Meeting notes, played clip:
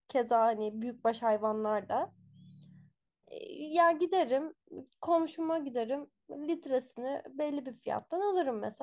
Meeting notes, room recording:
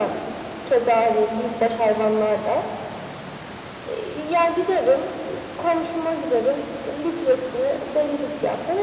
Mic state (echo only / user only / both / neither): echo only